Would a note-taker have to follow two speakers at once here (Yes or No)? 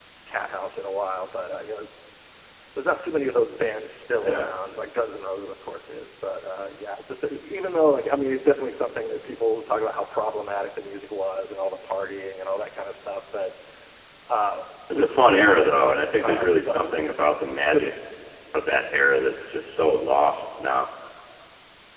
Yes